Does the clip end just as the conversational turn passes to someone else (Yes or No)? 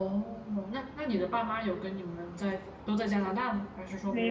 Yes